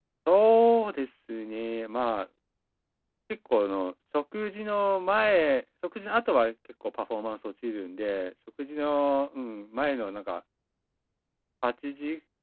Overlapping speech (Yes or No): No